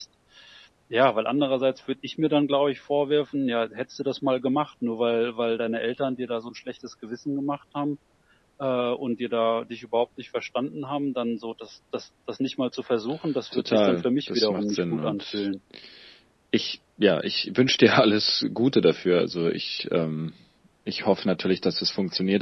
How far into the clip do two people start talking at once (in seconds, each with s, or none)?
13.5 s